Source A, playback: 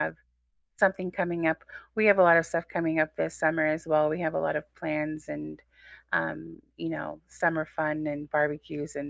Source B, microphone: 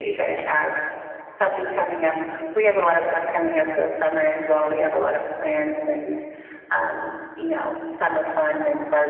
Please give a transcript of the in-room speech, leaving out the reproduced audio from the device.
none

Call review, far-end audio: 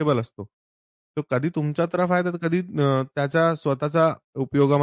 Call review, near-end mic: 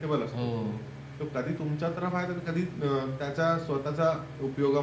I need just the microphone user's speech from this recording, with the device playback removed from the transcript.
हो

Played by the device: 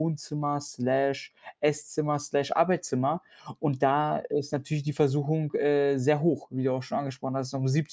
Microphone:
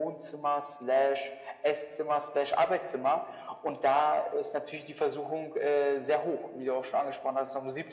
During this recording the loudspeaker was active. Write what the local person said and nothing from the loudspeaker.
none

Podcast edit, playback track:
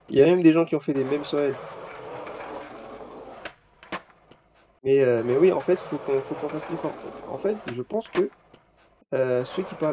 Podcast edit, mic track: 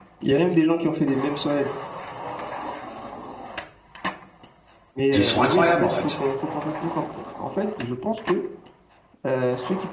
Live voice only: et ils sont incroyables en fait.

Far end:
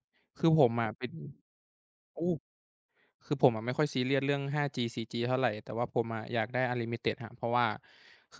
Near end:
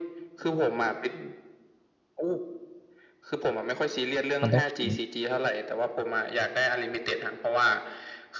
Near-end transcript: มันต้องทิ้ง

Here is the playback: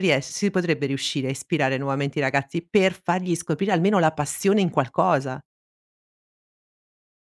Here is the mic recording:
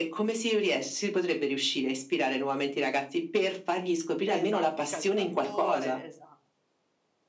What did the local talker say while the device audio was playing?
Esatto, il calciatore, esa

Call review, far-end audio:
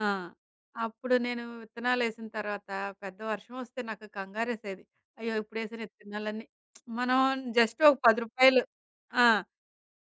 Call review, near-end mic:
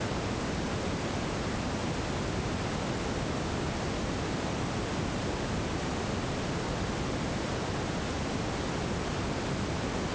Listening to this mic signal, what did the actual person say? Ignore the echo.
none

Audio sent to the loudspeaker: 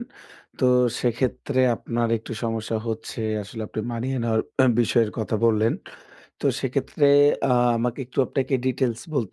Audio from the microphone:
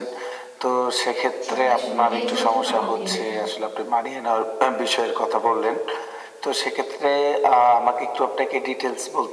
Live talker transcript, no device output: সবকিছু মিলিয়ে চলতে পারবো কিনা?

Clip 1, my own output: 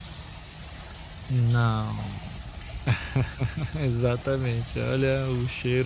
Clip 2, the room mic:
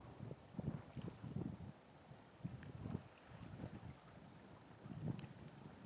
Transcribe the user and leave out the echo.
none

